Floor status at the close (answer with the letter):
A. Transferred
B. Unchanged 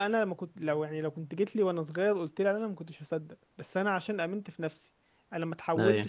B